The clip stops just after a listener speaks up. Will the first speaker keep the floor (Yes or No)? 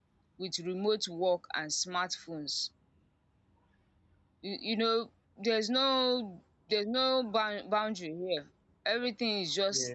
Yes